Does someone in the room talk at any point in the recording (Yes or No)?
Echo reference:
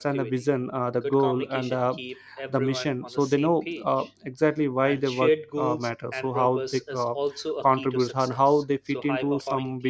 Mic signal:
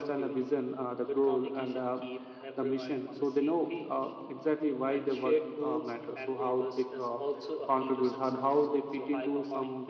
No